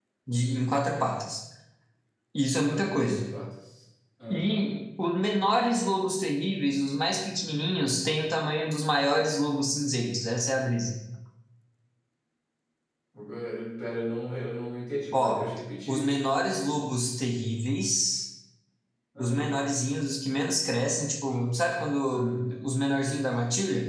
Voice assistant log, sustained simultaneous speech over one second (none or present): none